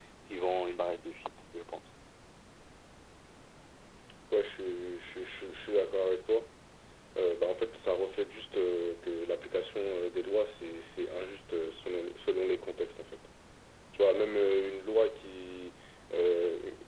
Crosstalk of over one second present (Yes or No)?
No